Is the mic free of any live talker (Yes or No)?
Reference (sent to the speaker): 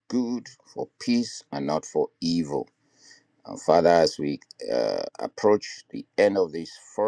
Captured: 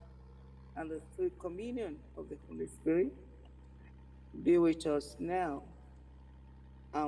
No